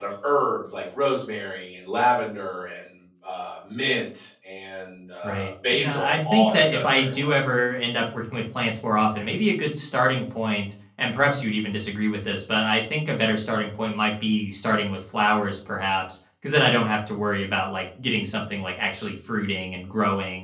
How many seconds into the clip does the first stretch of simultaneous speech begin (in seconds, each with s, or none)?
5.2 s